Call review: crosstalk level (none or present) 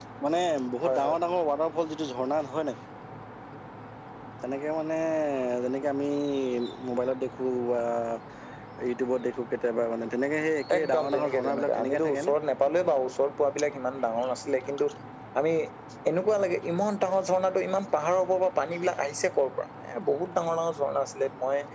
present